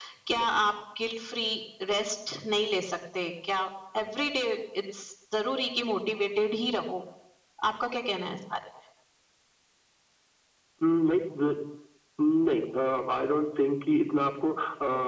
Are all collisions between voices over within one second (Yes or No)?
Yes